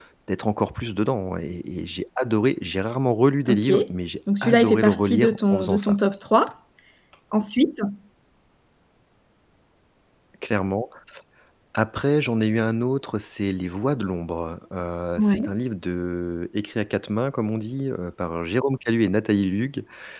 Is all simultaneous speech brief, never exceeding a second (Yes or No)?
No